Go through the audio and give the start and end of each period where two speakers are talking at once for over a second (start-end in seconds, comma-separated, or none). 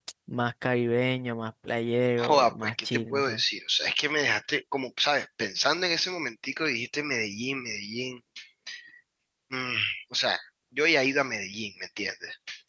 2.2-3.4